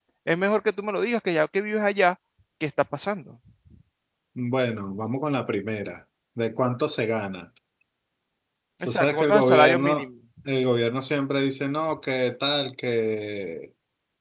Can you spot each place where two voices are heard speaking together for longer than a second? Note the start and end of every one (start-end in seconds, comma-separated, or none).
8.8-10.1